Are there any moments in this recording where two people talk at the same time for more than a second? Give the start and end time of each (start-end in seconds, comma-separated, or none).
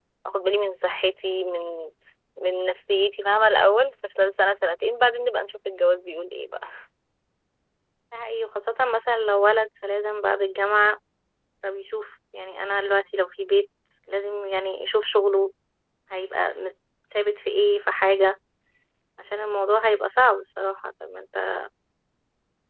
none